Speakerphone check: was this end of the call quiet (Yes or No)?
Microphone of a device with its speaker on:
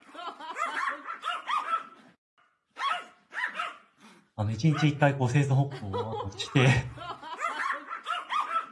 No